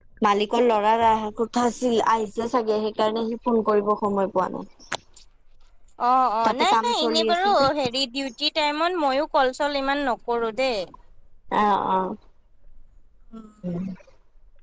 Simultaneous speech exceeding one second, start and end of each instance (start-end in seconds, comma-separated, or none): 6.4-7.7